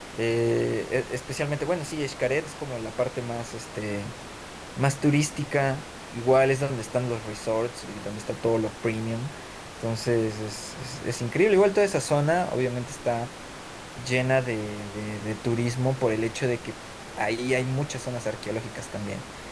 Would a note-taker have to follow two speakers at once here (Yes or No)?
No